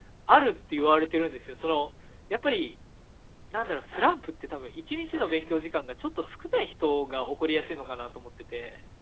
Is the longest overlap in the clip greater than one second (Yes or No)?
No